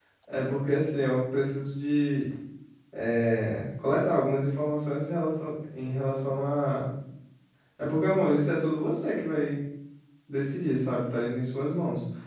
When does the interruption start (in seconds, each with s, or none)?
none